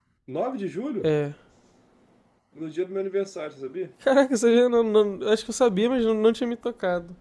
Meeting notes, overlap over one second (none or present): none